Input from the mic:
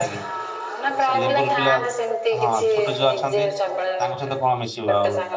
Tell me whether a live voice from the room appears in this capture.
Yes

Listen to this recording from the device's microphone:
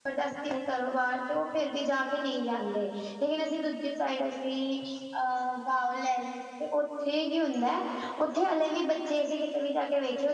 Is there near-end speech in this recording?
Yes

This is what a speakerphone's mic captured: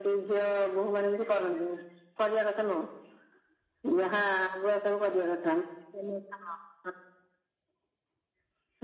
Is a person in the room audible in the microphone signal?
No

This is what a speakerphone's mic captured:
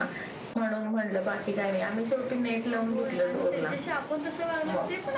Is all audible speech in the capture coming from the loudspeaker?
Yes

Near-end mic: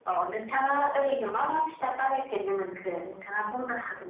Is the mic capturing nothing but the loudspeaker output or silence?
Yes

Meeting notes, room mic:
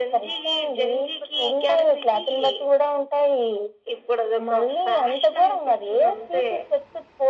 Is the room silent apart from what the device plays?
Yes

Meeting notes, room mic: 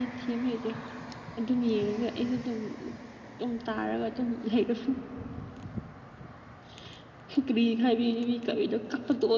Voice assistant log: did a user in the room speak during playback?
No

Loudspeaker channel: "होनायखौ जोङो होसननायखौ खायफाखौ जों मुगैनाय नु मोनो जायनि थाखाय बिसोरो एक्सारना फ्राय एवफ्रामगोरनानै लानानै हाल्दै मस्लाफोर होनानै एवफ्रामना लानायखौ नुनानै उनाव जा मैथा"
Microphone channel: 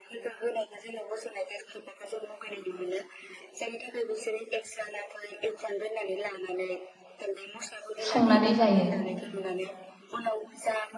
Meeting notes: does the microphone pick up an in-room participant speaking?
Yes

